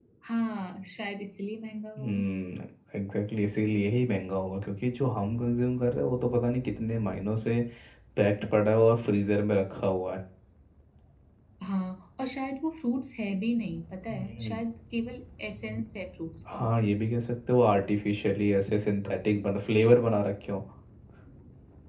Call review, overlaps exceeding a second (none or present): none